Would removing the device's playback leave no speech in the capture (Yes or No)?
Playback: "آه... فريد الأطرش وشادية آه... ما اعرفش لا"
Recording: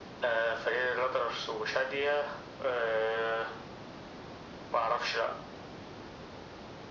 Yes